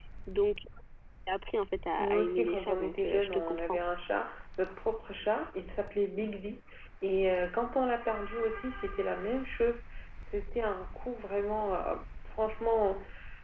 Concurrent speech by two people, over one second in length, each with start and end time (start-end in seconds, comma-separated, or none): 2.0-3.8